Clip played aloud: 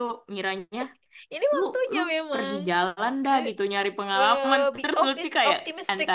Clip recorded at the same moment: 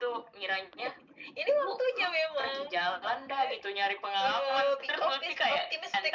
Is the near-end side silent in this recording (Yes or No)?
Yes